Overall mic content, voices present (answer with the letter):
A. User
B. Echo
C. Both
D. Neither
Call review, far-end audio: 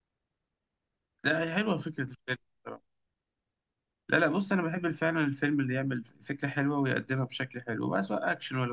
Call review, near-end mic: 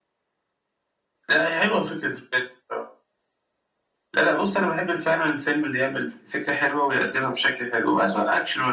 B